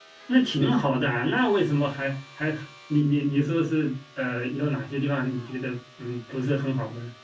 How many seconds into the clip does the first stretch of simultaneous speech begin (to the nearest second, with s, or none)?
none